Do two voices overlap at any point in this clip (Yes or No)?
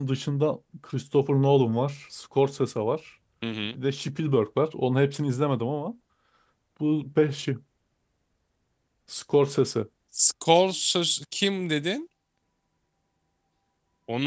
No